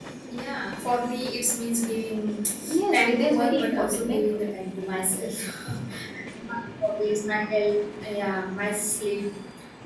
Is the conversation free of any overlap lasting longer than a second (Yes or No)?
No